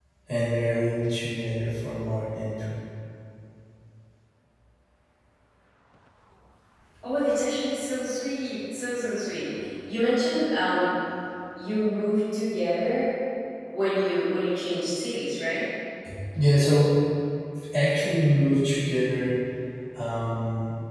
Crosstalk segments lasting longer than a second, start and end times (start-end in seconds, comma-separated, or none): none